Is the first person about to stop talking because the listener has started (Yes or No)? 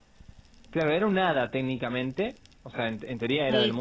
Yes